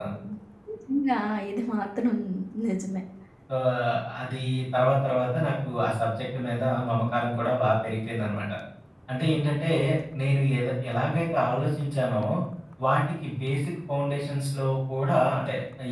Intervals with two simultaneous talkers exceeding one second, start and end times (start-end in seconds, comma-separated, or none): none